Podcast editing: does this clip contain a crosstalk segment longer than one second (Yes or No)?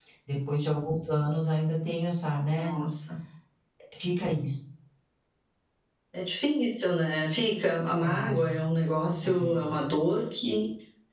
No